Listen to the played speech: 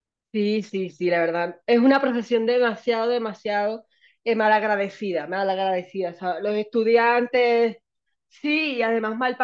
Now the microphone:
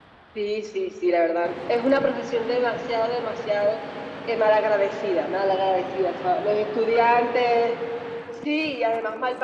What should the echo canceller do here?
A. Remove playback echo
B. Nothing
A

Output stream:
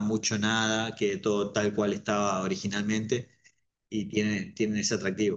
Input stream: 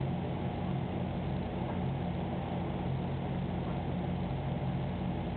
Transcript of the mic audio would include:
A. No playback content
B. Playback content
A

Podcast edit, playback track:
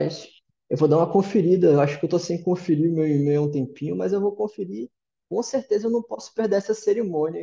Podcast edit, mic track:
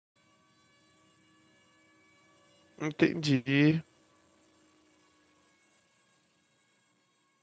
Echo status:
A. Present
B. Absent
B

